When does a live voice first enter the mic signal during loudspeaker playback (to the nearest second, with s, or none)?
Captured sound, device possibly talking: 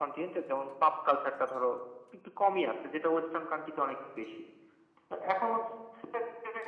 none